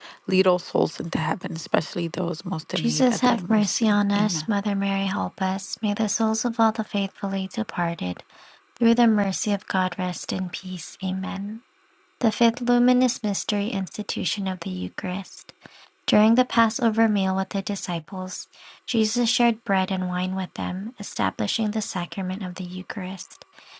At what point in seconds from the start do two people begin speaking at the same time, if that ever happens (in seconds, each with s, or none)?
2.8 s